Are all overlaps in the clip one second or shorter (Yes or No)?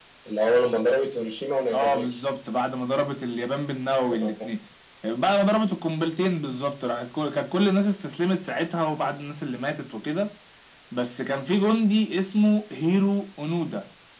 Yes